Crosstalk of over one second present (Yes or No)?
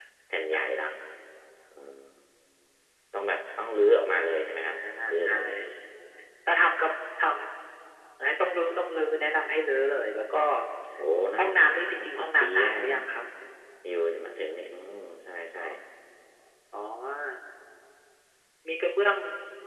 Yes